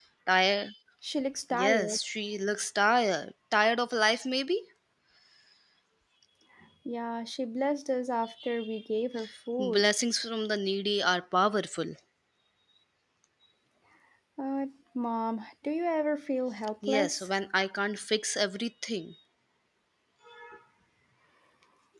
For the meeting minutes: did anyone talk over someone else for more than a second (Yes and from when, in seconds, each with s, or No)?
No